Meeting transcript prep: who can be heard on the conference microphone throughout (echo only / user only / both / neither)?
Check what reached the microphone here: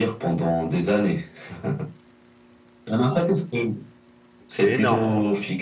both